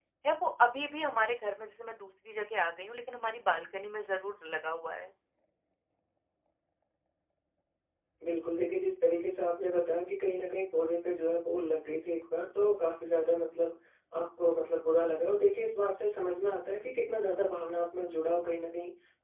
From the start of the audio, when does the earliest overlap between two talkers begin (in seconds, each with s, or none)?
none